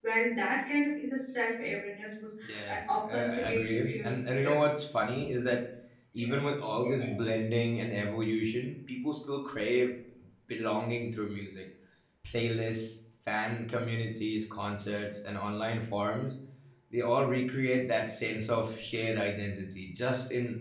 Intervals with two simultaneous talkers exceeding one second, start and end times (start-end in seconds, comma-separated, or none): 2.4-4.8